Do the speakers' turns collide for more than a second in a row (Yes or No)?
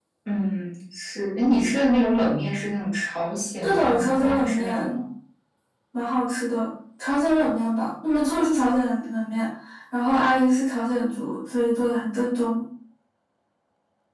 Yes